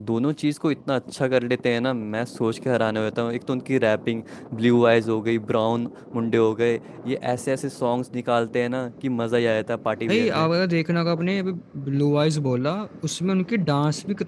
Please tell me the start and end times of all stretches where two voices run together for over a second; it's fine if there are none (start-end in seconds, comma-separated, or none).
none